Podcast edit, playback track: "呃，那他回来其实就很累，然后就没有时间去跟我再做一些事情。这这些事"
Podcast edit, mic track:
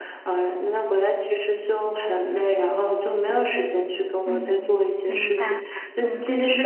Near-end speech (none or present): present